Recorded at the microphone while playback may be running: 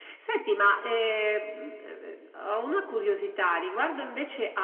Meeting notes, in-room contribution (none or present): none